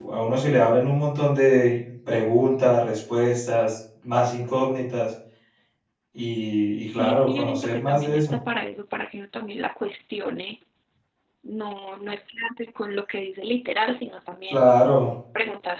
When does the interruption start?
6.9 s

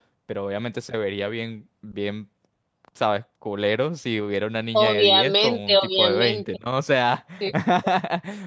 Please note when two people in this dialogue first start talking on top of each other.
4.7 s

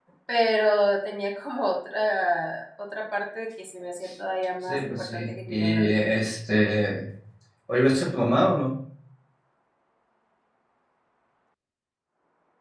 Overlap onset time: 4.7 s

